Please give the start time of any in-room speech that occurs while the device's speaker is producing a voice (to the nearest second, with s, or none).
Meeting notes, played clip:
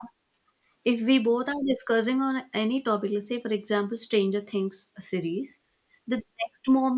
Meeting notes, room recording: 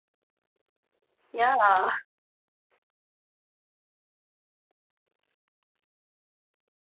1 s